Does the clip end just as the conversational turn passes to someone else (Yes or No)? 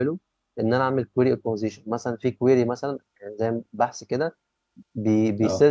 No